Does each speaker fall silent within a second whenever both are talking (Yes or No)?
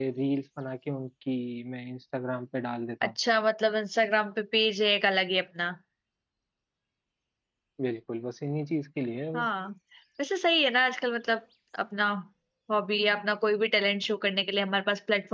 Yes